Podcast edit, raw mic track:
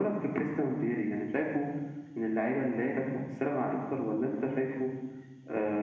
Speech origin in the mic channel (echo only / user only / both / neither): echo only